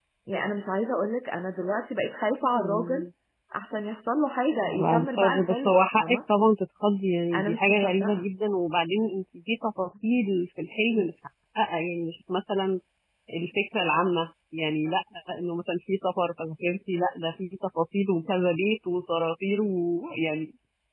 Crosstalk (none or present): present